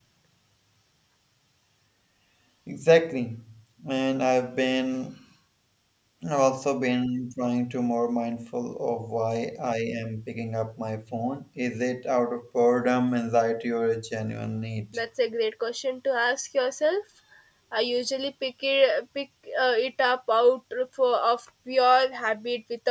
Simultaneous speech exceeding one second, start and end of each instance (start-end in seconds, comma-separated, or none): none